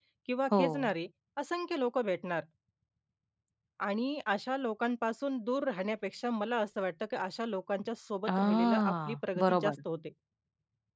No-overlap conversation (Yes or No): No